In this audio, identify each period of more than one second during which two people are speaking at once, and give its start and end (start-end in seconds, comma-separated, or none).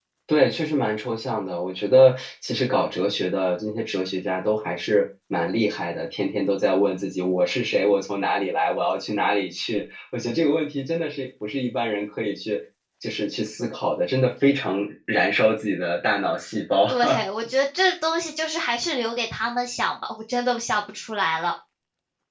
none